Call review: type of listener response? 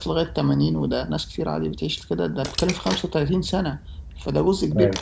listening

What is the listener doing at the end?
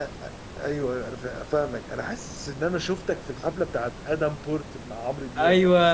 taking over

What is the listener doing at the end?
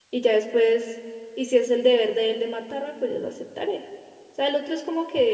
taking over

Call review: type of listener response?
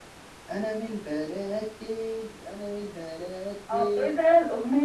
taking over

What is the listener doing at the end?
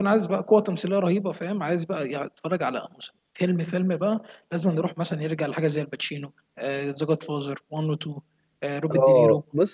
taking over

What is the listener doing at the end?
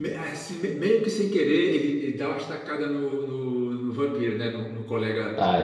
listening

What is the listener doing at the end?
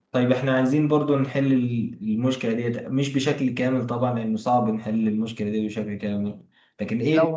listening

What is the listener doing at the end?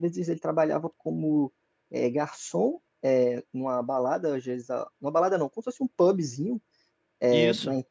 listening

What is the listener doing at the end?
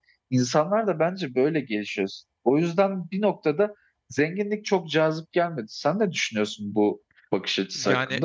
taking over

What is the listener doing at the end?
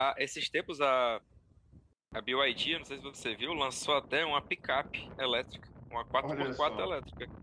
listening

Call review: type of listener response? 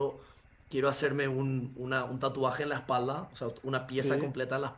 listening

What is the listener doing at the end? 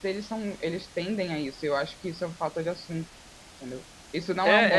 taking over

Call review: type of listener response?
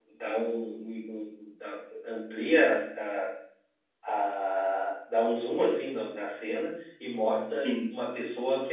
listening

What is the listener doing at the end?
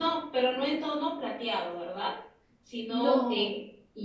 listening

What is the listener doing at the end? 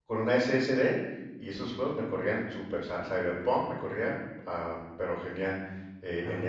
listening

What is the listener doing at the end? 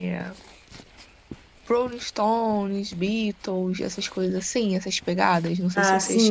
taking over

